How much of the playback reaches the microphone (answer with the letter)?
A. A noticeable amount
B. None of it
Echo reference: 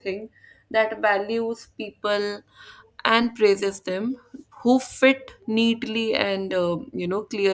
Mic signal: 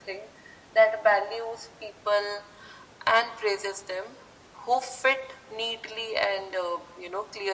A